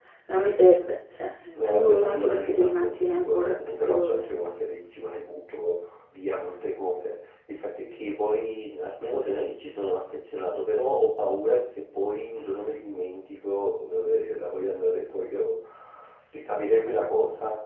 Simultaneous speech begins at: 1.6 s

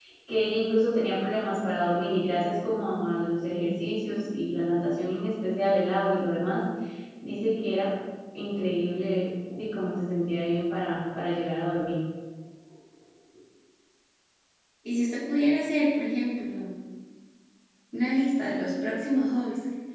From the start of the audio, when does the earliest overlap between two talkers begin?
none

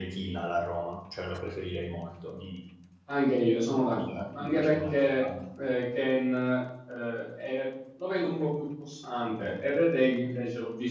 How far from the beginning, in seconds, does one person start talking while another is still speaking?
3.9 s

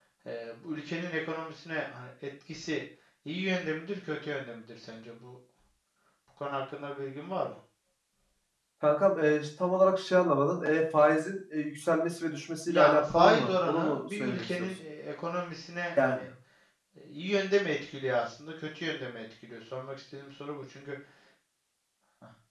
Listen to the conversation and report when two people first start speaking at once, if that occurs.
12.7 s

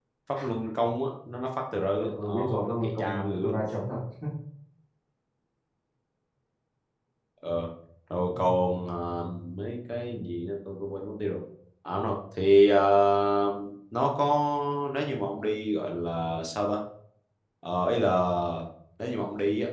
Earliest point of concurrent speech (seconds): 2.0 s

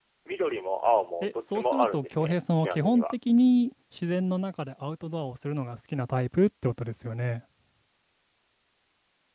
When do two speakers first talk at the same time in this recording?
1.2 s

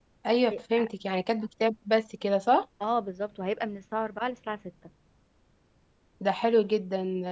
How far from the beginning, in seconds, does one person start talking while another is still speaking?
none

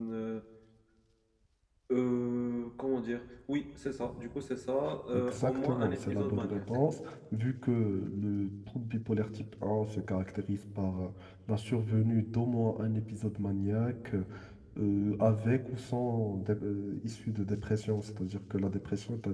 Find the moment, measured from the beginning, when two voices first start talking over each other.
5.1 s

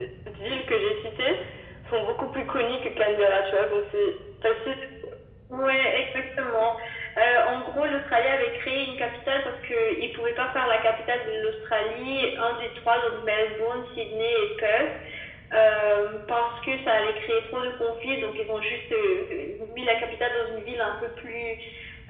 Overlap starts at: none

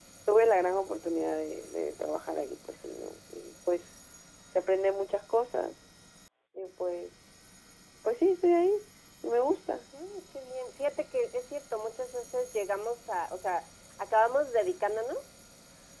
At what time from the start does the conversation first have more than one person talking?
none

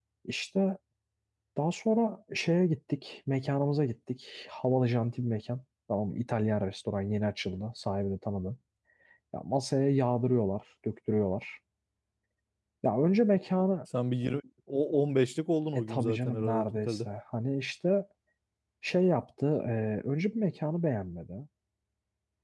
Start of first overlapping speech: 15.7 s

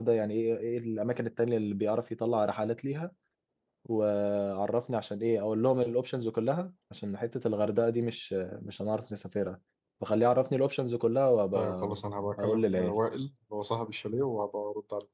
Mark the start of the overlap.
11.5 s

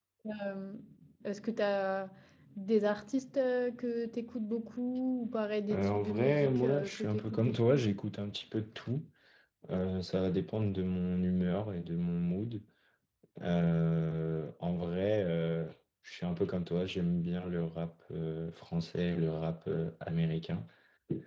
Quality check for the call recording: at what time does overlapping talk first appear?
5.7 s

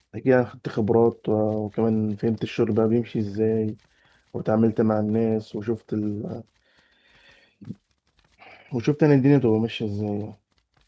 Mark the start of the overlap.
none

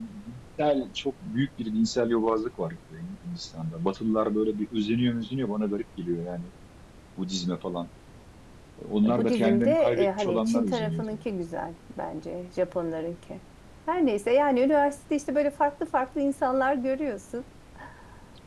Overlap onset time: 9.1 s

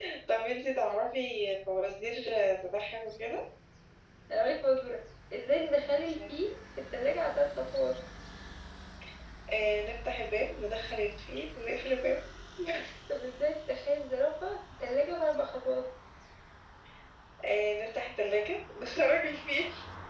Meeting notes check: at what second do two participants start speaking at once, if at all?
none

